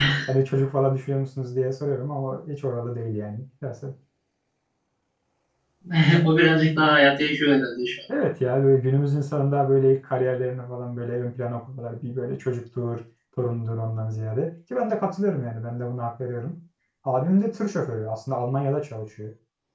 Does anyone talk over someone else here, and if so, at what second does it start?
none

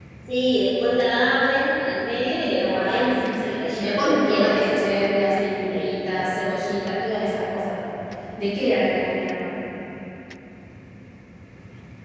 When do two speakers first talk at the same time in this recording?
3 s

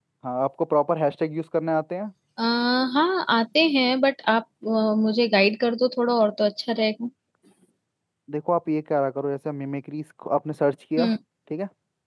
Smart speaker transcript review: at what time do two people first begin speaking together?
none

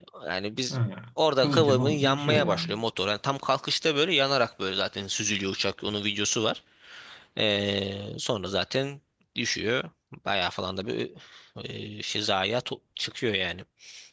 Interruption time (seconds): 1 s

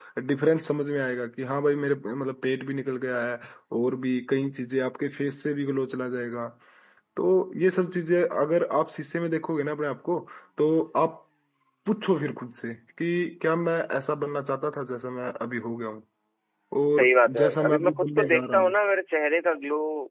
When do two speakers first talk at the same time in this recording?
17 s

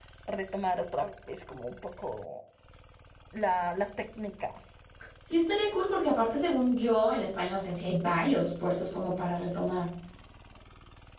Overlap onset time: none

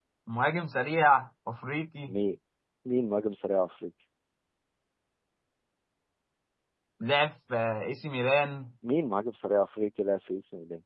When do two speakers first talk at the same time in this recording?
none

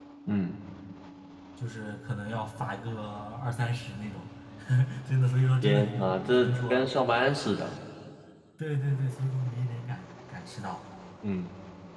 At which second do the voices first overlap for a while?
6 s

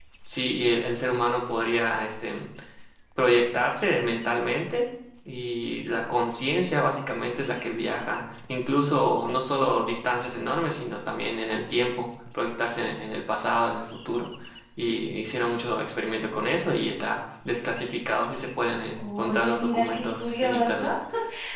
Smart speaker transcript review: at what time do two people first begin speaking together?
19 s

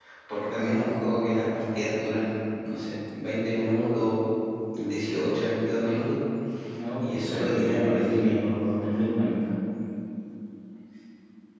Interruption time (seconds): 7 s

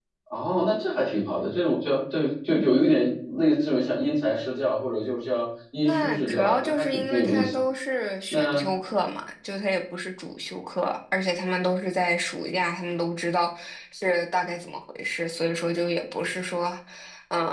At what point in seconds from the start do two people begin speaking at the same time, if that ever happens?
6 s

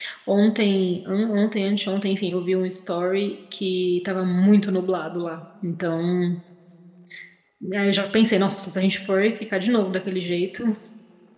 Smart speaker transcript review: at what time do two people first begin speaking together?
none

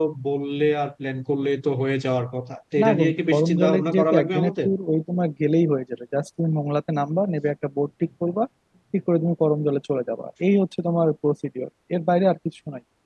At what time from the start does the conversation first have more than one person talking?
3 s

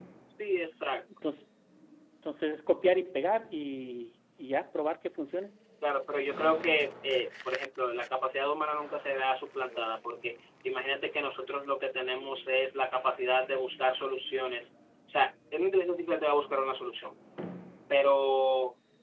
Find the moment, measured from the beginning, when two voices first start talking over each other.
none

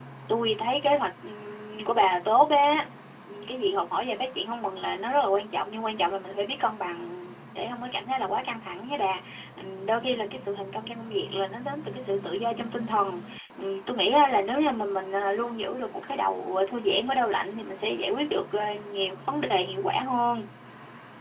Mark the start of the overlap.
none

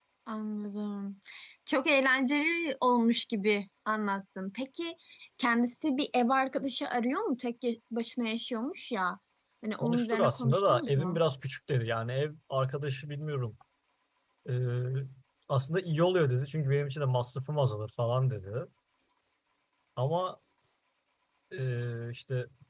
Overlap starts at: 10 s

